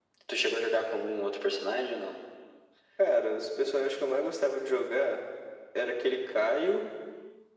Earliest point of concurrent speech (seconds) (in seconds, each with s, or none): none